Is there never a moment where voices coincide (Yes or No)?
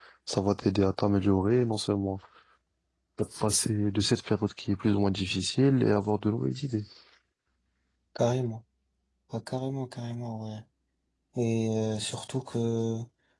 Yes